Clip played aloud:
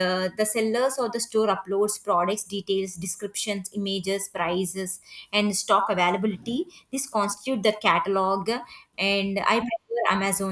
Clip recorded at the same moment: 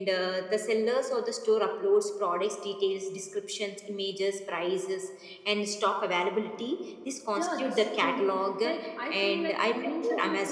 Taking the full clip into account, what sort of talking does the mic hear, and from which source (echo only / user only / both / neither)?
both